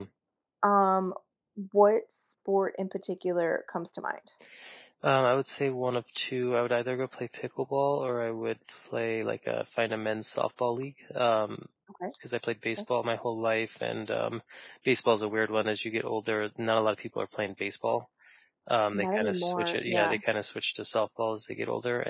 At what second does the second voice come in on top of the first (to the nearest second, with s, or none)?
19 s